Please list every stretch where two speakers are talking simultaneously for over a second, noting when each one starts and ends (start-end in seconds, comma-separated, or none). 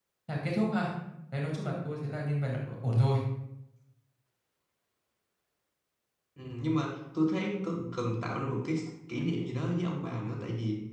none